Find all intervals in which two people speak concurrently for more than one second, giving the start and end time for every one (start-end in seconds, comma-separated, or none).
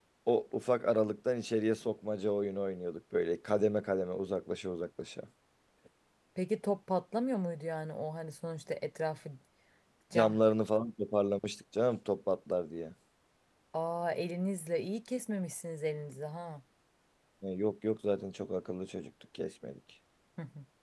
none